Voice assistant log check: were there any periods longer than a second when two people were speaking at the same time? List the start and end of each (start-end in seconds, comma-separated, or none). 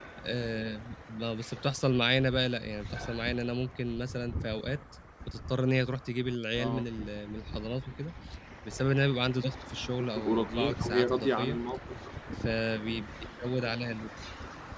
10.2-11.6